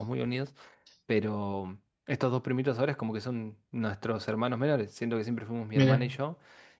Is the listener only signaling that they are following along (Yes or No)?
Yes